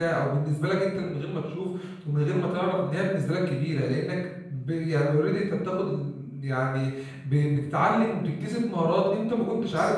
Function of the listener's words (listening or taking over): listening